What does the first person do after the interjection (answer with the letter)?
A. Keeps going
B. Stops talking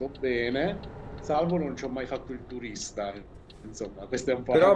B